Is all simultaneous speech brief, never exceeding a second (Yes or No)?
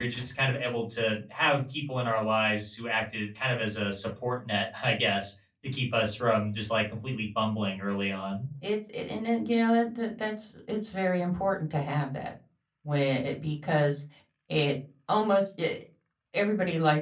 Yes